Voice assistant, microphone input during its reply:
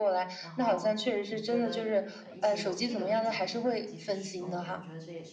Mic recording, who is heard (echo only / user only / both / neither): both